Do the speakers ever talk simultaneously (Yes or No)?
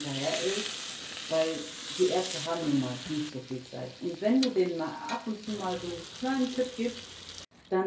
No